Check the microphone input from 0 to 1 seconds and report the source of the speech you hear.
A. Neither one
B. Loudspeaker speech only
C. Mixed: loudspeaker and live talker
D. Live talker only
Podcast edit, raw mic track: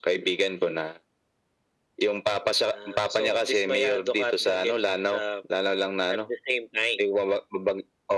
B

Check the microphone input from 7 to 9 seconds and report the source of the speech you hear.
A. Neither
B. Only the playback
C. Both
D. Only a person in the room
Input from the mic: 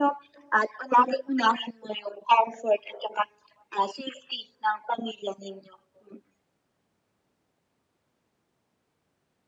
A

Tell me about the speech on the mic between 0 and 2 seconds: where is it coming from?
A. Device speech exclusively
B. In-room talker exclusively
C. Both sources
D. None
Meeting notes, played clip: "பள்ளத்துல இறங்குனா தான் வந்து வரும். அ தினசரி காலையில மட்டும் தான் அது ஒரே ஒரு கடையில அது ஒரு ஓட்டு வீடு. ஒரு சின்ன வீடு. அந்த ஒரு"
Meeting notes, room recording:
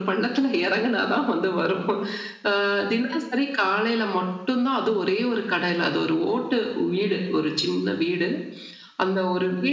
A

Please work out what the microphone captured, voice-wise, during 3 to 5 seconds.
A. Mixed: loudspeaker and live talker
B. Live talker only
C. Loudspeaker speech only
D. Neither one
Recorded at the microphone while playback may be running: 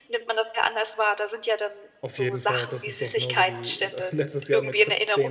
A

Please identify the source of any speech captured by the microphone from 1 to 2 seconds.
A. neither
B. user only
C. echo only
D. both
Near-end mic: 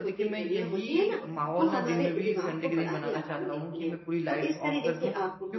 D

